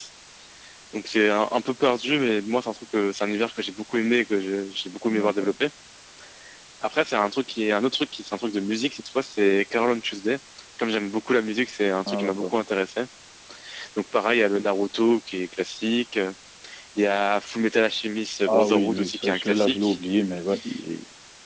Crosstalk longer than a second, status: present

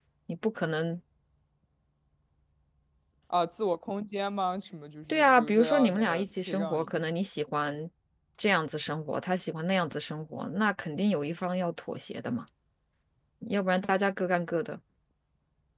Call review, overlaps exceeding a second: present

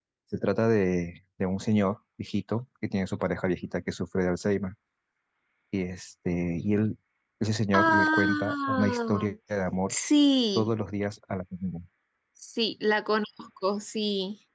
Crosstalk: present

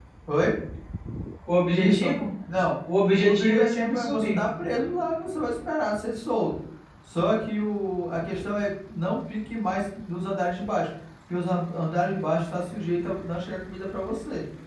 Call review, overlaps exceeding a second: present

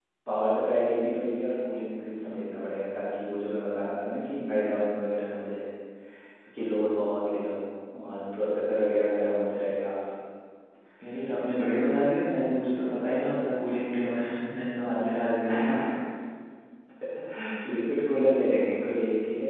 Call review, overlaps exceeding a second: none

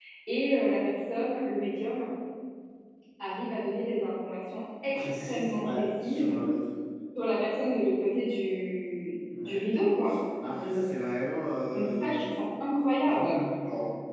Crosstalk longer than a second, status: present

